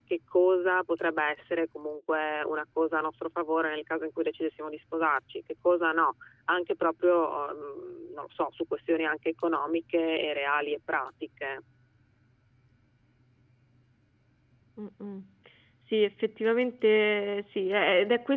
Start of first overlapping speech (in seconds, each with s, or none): none